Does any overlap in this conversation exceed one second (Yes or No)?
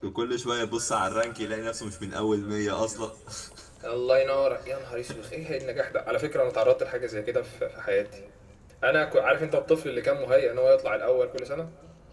No